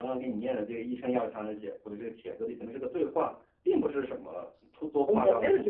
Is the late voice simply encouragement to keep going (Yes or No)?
No